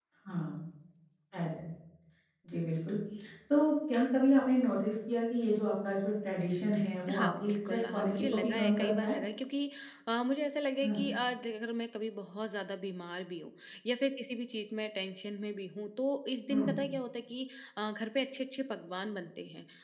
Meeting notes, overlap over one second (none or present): present